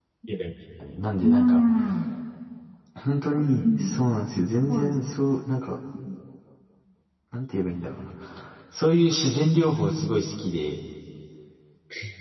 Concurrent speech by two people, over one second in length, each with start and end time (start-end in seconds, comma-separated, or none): none